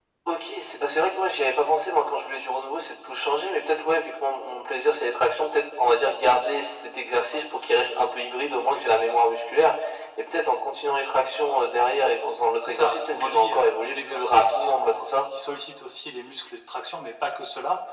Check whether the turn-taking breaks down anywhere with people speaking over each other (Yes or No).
Yes